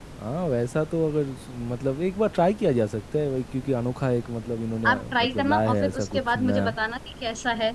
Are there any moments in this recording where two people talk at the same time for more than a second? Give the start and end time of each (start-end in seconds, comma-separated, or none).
4.8-6.8